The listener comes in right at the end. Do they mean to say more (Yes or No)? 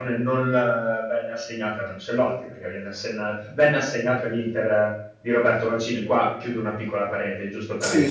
Yes